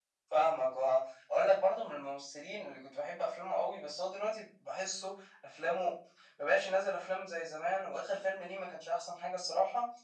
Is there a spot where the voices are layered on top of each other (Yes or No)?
No